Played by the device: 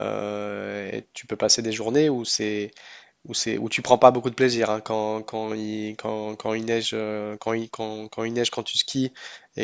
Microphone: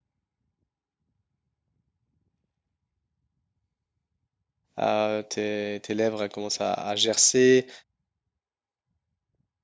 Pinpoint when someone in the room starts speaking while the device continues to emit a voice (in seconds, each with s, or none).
4.8 s